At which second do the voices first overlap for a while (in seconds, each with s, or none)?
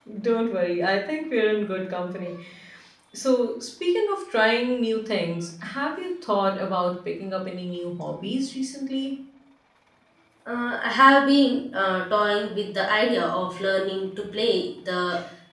none